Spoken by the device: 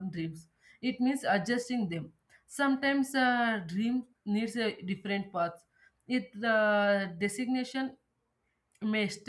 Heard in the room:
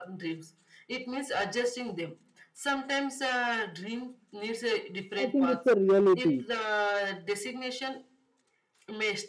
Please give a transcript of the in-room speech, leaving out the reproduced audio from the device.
i think it's a reality

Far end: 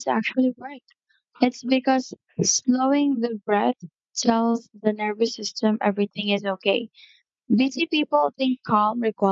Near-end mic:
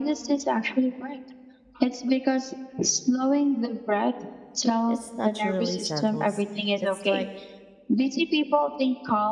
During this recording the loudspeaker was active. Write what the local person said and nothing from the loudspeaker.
it naturally settles. It's like

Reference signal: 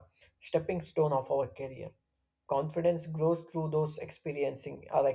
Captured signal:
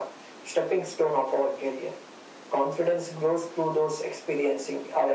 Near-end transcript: none

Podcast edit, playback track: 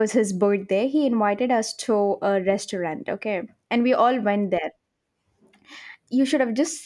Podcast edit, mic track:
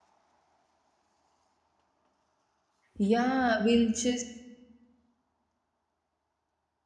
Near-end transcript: Yeah, we'll just.

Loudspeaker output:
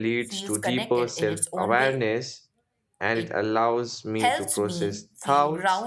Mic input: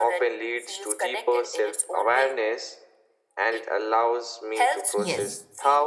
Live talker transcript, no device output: Yes,

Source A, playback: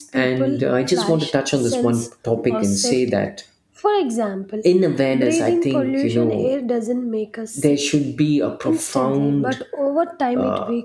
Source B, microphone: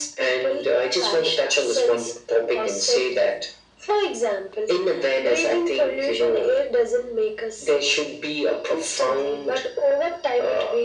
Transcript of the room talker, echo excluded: none

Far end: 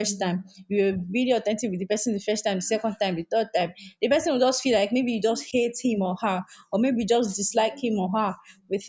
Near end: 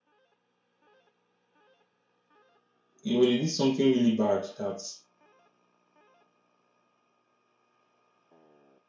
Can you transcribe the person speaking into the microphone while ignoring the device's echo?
you know they did something really bad that

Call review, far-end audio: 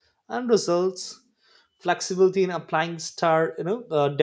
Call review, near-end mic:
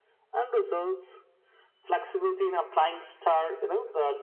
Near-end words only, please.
none

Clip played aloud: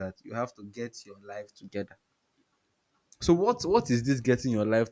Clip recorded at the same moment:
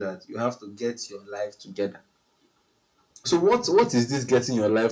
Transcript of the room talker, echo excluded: none

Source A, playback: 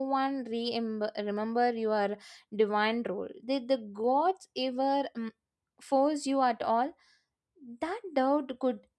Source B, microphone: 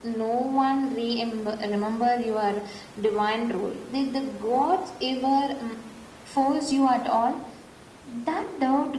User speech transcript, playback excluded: none

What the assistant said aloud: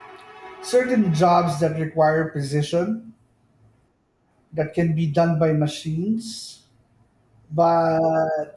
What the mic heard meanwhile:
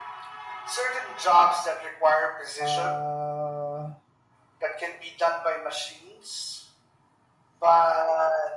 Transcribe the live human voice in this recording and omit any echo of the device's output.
uh,

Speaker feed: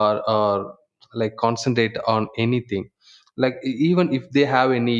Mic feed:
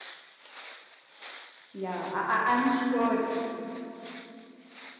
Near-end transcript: Yeah, I, I, I'm sure.

